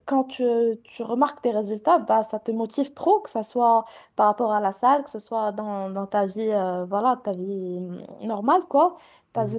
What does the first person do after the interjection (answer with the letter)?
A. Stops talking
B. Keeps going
B